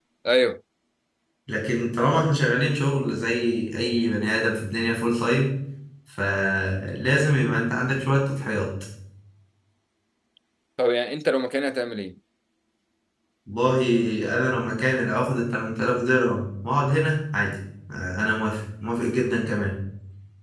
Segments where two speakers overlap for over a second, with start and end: none

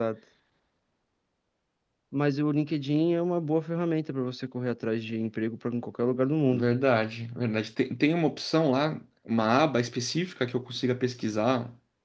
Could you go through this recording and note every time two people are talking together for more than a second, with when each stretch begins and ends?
none

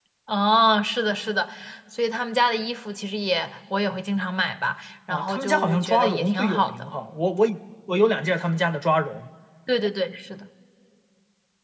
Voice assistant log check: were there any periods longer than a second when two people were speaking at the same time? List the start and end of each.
5.1-6.7

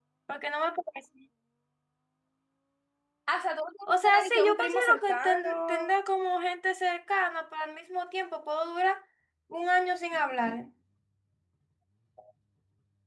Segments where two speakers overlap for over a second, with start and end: 3.9-5.9

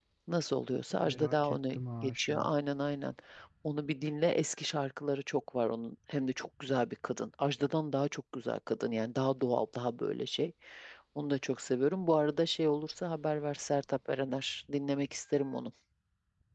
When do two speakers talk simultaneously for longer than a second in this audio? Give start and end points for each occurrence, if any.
1.0-2.5

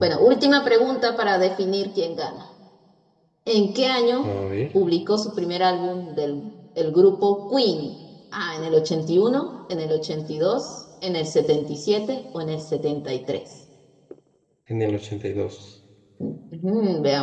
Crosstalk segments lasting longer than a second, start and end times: none

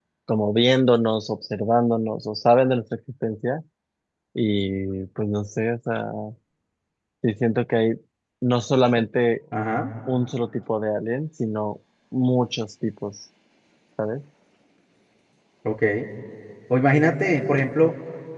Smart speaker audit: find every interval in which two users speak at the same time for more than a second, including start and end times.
none

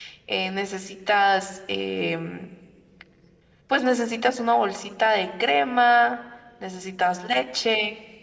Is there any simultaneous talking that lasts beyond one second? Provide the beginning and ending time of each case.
none

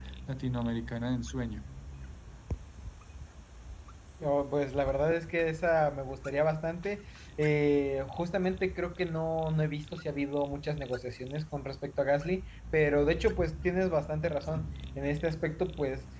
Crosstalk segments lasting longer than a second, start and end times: none

